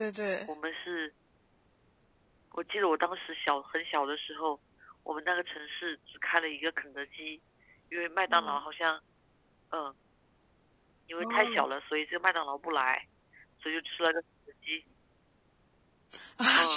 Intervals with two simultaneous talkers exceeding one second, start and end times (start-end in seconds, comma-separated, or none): none